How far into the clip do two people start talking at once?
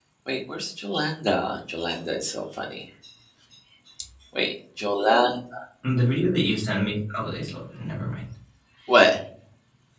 none

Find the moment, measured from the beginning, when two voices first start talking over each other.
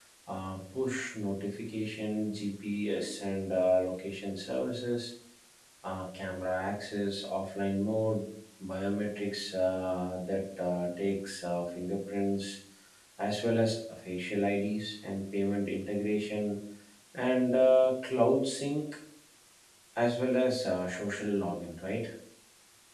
none

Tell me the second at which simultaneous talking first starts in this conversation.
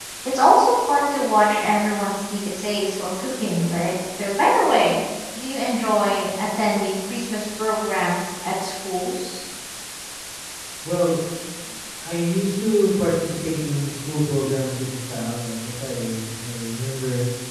none

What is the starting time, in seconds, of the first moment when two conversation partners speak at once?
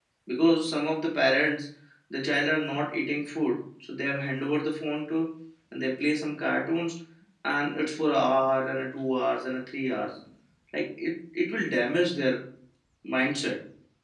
none

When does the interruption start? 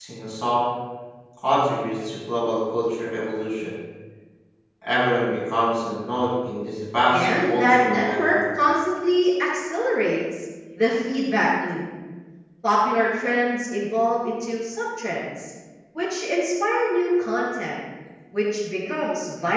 7 s

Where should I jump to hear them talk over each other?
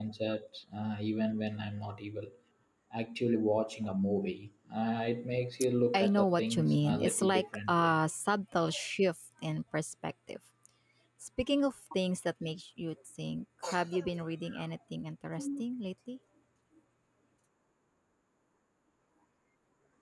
6 s

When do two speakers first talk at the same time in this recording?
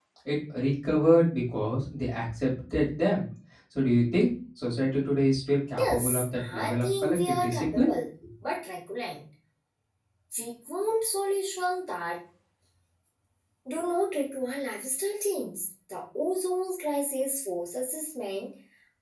6 s

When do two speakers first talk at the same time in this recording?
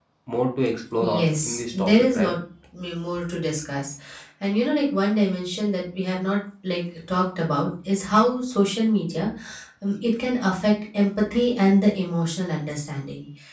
1 s

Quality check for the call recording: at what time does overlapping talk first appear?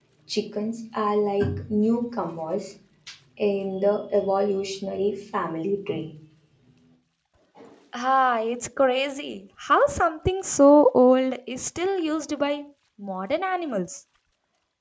none

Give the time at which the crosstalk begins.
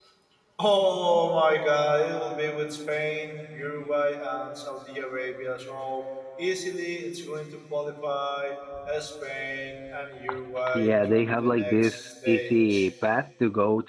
11 s

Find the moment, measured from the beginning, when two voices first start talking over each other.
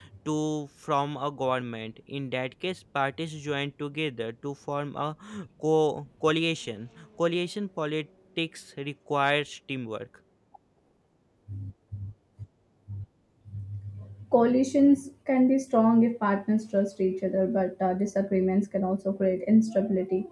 none

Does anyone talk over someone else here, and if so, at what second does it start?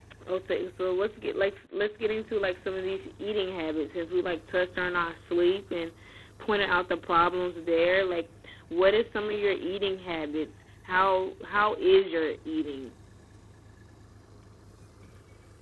none

